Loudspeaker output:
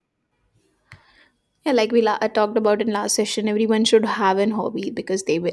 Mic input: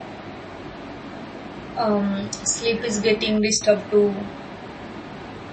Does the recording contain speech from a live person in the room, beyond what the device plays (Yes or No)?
Yes